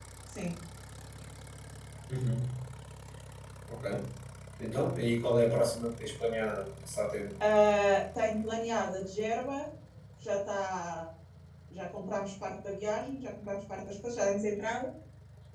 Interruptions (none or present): none